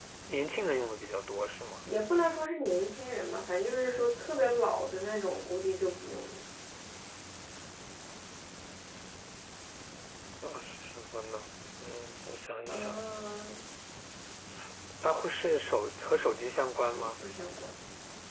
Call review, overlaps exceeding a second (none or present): none